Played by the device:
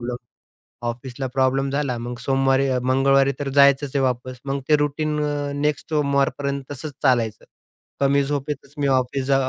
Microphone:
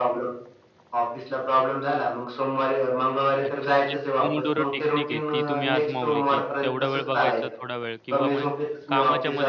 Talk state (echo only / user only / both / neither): both